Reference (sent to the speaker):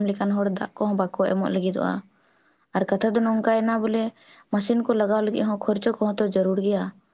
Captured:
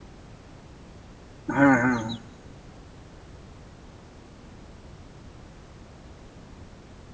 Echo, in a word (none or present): none